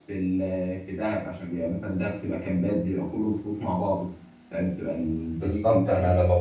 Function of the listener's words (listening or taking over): taking over